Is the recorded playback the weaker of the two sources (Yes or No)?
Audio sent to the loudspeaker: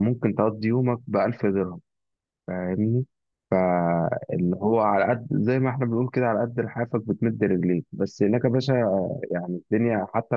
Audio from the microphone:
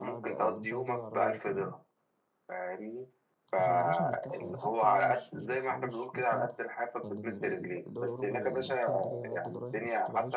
No